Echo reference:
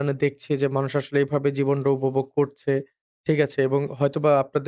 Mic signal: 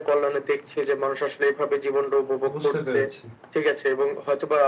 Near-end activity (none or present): present